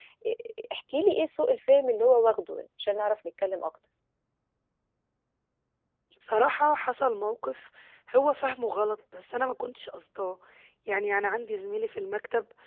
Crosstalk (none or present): none